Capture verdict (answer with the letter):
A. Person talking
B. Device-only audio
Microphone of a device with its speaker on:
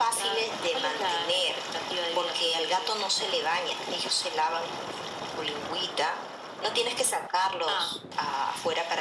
B